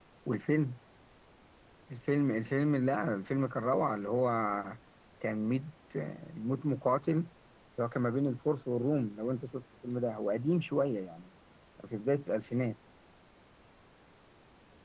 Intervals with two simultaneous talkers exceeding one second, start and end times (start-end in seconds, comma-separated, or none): none